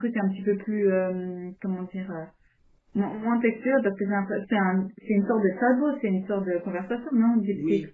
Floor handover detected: Yes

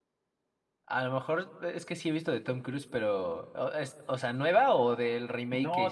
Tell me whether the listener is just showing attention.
No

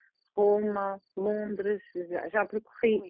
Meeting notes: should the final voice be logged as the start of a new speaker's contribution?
No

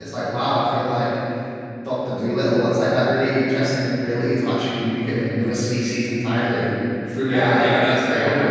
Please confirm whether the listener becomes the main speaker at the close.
Yes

